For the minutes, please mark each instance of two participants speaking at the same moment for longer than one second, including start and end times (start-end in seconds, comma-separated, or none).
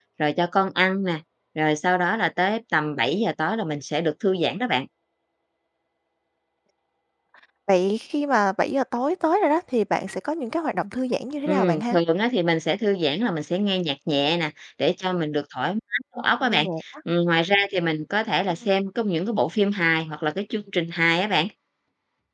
none